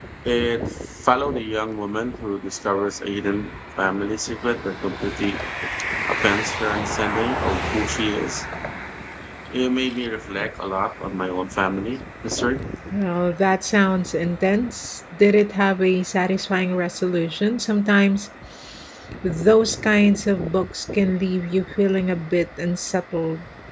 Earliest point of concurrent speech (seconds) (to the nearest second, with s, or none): none